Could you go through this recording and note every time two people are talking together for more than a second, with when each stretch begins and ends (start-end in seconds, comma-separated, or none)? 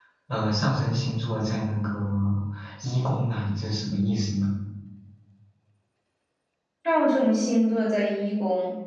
none